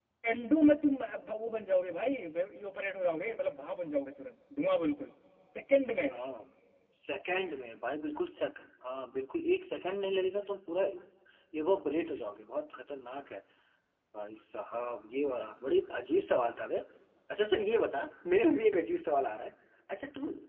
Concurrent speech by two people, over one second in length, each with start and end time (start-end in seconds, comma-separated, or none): none